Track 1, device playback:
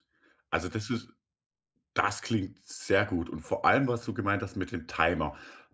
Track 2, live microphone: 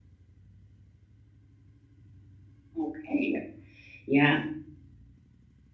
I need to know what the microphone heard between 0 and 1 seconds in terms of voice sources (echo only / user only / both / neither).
neither